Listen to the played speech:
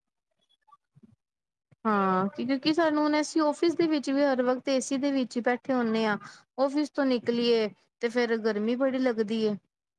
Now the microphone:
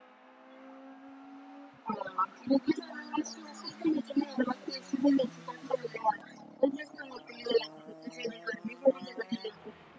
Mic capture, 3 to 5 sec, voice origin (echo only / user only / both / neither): echo only